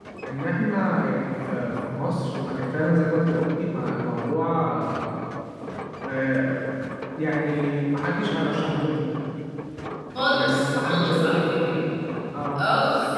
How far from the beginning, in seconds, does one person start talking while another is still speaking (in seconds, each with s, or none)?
10.3 s